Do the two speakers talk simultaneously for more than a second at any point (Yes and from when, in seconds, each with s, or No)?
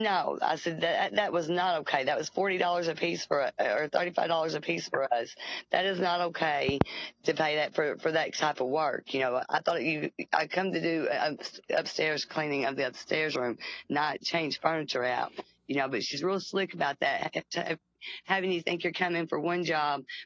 No